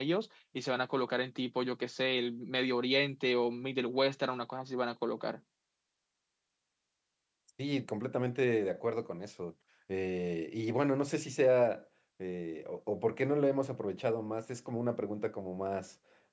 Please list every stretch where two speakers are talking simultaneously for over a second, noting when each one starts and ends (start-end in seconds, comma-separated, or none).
none